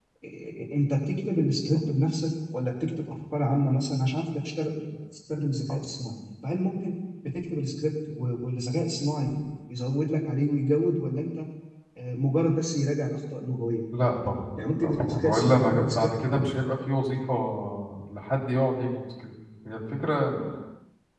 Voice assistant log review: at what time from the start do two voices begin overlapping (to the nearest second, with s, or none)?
15 s